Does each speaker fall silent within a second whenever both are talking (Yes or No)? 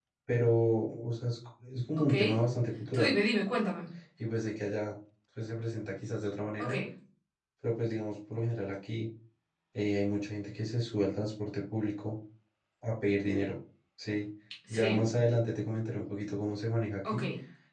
Yes